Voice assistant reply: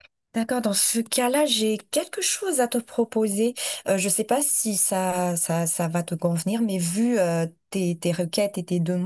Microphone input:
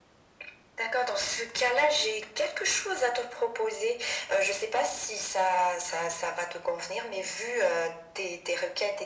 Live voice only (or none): none